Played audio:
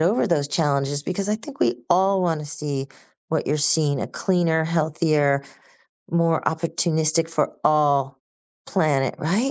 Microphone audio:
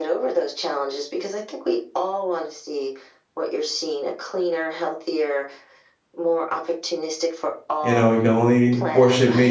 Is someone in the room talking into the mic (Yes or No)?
Yes